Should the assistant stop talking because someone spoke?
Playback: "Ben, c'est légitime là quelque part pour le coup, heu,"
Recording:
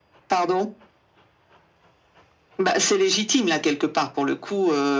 No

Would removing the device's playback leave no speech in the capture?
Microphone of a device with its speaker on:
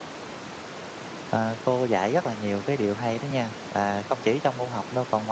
No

